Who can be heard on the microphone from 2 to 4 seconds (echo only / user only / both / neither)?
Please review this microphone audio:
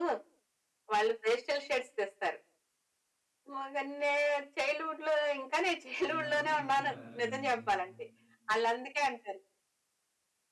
echo only